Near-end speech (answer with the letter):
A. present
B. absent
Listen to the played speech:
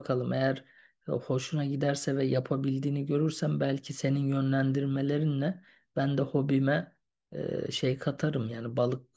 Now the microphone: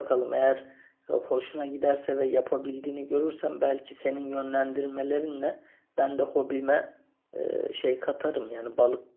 B